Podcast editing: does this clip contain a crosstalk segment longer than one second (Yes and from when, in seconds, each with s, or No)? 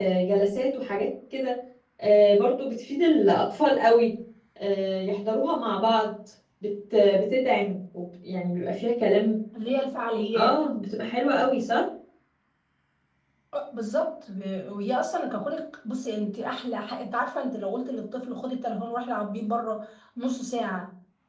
No